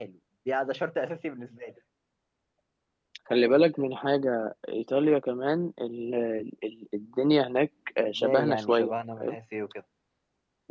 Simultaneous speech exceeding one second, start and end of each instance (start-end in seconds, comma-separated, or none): 8.0-9.3